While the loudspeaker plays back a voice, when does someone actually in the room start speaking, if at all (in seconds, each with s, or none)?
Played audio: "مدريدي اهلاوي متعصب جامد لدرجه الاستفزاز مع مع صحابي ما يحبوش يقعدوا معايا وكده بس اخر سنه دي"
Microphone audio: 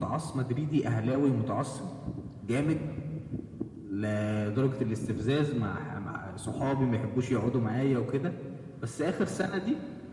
none